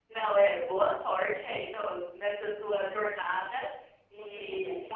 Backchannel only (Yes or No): Yes